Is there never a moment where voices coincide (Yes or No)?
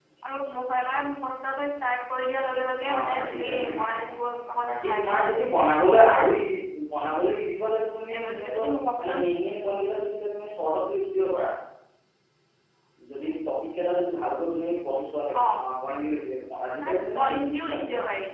No